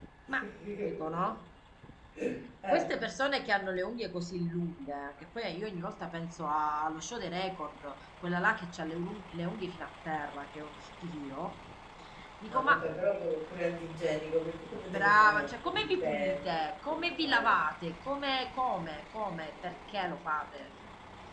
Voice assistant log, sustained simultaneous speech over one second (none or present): present